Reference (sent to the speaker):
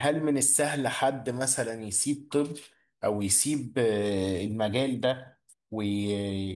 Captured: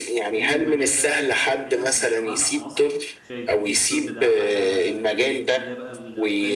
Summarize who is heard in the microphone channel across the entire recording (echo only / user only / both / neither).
both